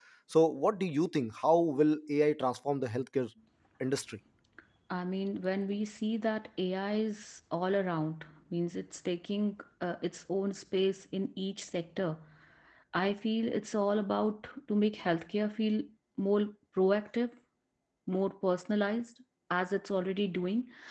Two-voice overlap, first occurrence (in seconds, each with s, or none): none